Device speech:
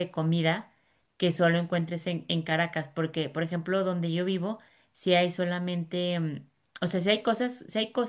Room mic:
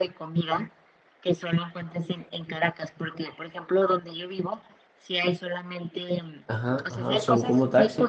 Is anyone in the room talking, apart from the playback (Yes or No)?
Yes